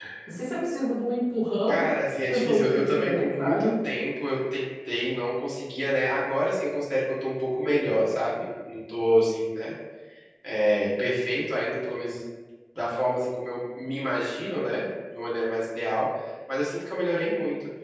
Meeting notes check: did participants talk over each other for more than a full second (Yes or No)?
Yes